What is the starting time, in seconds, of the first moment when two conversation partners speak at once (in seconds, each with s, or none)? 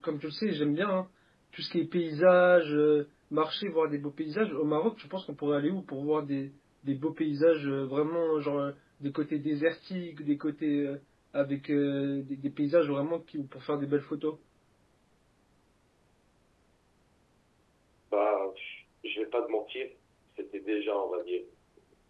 none